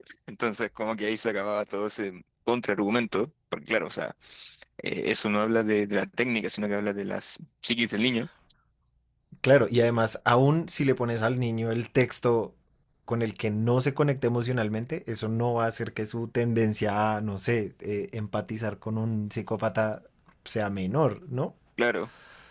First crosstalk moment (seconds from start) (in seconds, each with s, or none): none